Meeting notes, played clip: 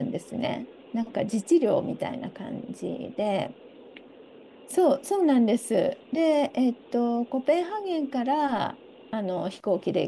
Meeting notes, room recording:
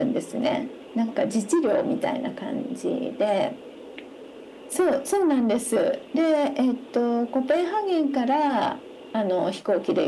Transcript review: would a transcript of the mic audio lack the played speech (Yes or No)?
No